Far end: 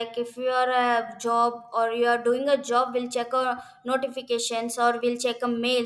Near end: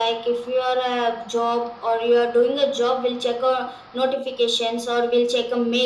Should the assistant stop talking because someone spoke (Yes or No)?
No